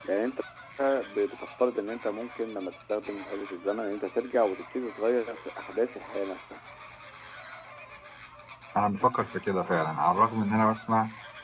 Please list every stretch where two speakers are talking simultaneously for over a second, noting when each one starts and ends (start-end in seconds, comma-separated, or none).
none